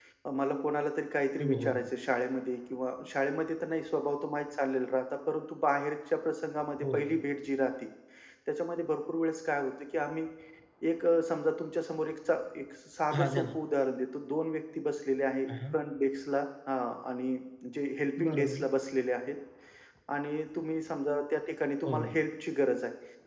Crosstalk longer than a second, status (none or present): none